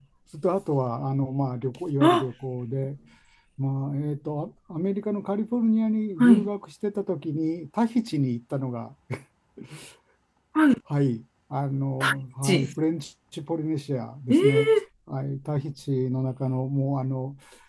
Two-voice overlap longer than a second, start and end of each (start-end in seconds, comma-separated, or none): none